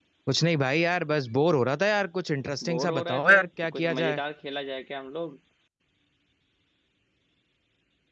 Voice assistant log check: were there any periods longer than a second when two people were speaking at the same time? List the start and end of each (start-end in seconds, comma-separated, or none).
2.7-4.2